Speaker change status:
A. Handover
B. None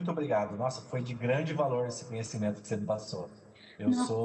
B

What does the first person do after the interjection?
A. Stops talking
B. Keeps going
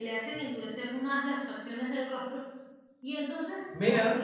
A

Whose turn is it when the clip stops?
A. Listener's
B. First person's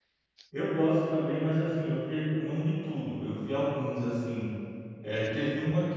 B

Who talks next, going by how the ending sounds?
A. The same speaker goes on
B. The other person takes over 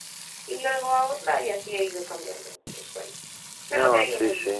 B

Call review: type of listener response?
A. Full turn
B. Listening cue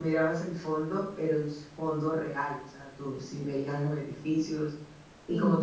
B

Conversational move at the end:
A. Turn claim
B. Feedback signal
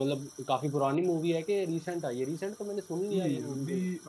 A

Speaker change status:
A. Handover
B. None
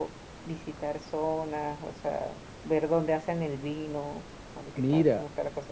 A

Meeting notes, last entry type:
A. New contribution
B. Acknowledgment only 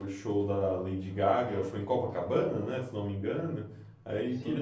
B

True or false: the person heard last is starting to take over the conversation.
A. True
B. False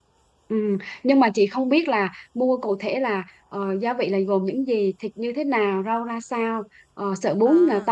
B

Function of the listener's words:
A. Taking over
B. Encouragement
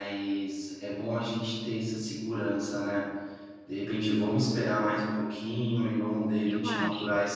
B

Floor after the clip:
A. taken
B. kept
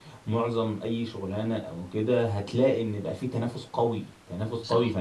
B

